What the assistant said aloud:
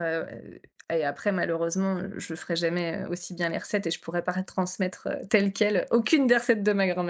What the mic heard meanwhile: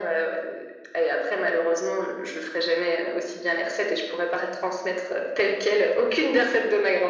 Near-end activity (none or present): none